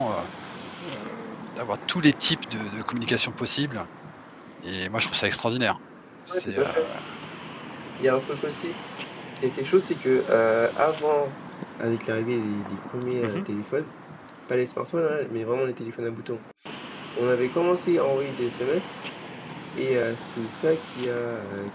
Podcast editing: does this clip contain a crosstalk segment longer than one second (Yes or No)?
No